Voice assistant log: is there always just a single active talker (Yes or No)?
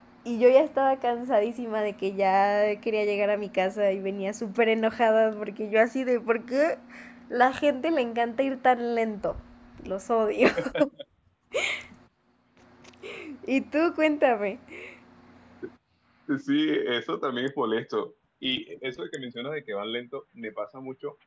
Yes